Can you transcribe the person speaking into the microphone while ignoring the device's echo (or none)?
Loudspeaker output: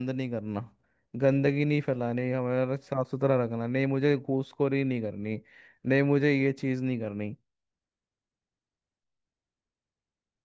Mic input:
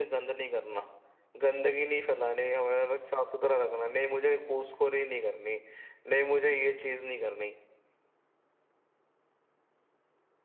none